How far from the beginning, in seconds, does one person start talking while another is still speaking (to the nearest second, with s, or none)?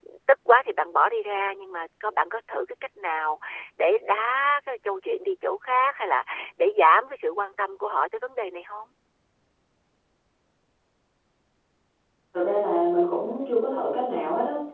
none